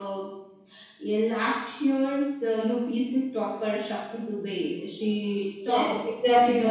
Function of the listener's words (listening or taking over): taking over